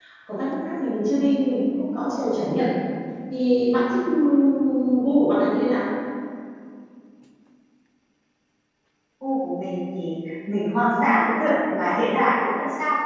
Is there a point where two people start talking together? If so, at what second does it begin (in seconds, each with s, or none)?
none